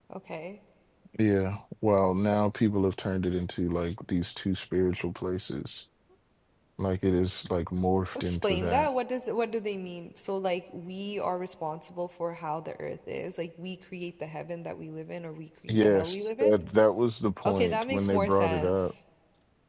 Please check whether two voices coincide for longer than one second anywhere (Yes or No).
Yes